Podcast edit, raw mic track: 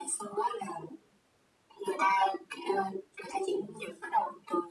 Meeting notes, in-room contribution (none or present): none